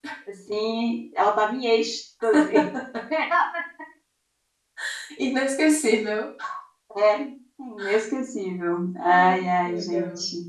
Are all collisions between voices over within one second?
No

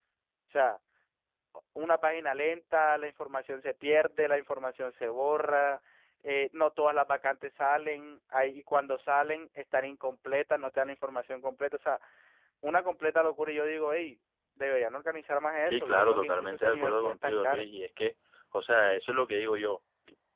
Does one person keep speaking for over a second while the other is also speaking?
Yes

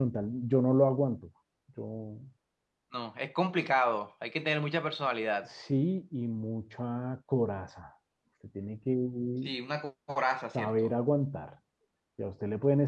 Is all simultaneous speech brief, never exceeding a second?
Yes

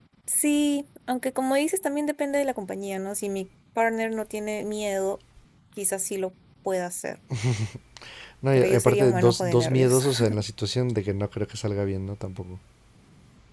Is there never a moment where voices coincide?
No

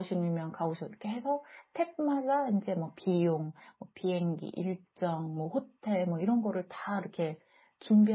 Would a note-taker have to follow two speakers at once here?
No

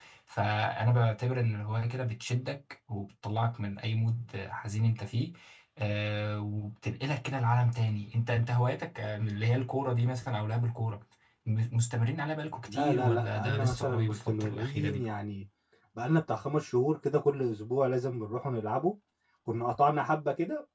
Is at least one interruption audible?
Yes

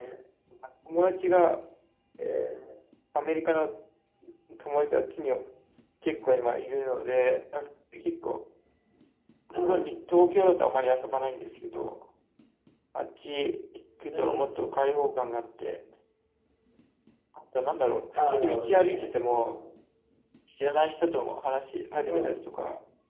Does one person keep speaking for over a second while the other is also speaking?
Yes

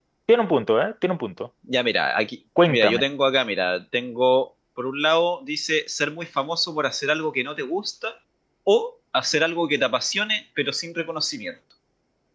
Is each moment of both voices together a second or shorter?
Yes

